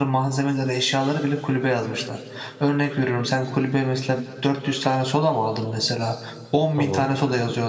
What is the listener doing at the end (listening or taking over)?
listening